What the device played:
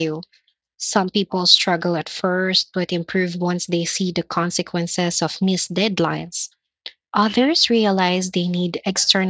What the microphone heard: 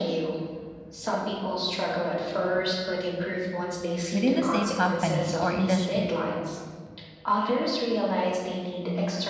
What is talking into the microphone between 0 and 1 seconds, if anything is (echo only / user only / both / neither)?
echo only